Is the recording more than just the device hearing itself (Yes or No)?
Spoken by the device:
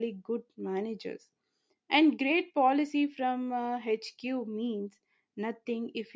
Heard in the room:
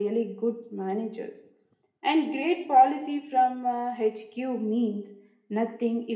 No